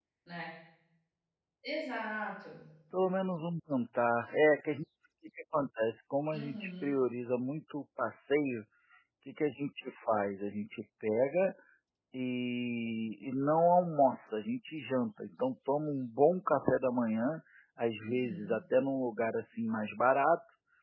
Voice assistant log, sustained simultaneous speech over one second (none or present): none